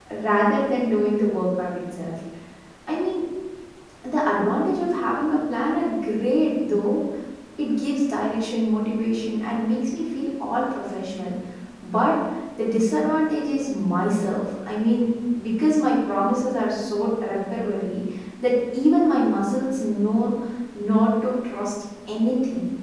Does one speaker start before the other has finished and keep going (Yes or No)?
No